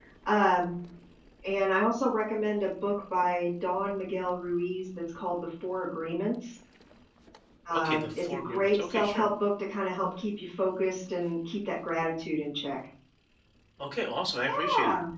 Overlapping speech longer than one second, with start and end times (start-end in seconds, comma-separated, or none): 7.7-9.2